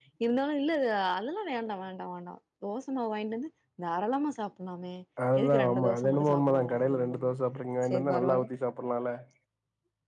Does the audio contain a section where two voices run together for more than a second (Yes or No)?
Yes